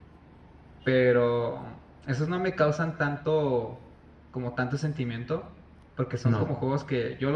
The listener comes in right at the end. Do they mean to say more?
No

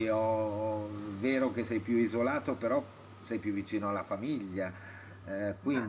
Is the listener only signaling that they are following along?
No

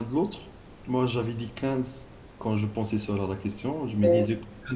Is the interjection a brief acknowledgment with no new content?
Yes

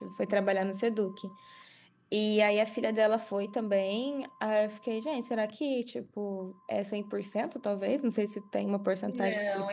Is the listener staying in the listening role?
No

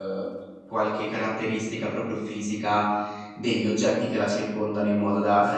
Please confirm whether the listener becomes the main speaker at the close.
No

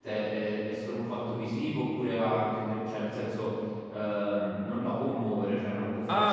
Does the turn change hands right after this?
Yes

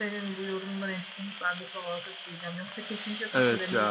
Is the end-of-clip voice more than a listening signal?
No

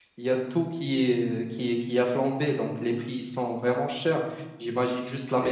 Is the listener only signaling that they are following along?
Yes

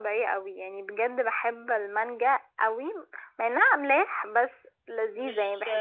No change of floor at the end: No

